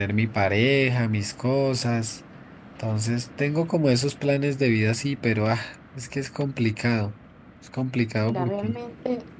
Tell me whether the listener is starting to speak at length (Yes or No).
Yes